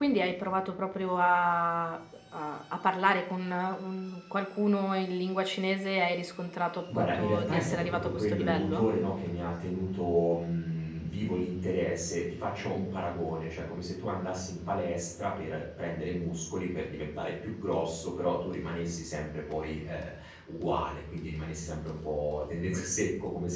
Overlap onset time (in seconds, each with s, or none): 6.9 s